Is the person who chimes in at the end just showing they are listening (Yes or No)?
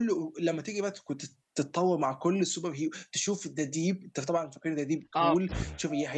Yes